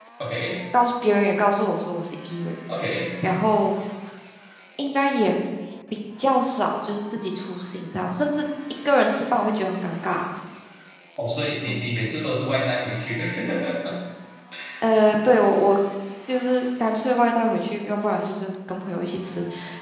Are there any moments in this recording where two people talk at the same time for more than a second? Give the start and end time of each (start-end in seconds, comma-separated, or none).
none